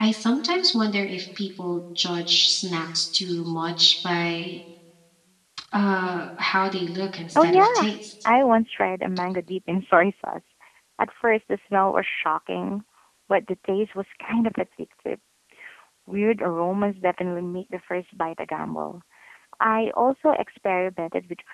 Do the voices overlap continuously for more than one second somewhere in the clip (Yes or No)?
No